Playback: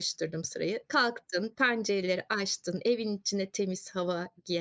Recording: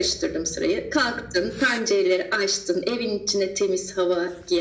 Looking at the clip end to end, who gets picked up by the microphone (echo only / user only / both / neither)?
echo only